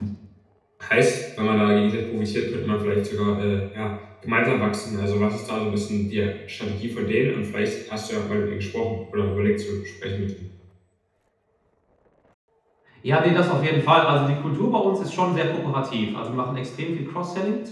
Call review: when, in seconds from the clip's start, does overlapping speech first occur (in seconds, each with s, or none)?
none